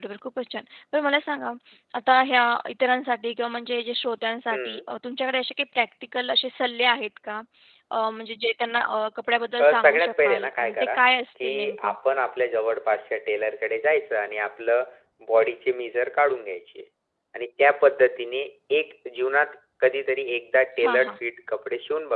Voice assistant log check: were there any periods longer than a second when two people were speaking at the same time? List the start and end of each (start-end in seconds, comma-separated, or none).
9.6-10.9